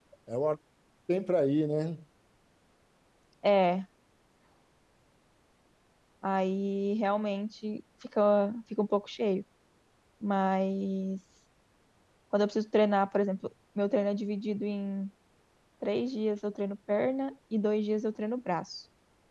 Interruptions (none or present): none